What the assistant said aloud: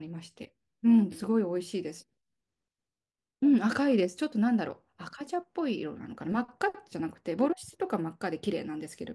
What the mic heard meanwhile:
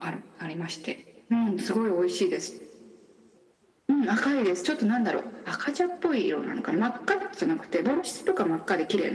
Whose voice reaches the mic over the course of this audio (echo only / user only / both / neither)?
echo only